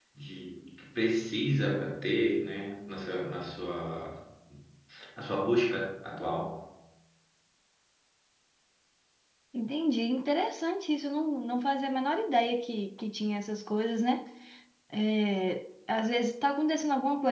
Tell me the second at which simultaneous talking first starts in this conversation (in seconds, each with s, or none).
none